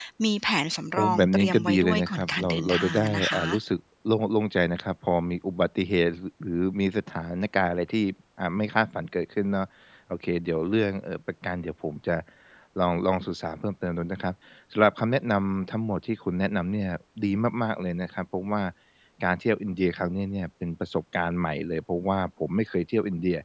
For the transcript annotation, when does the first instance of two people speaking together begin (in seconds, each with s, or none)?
1.0 s